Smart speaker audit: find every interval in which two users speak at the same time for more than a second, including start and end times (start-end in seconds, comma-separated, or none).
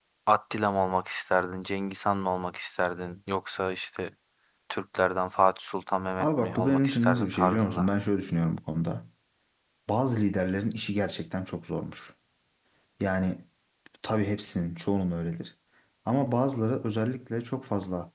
6.2-7.9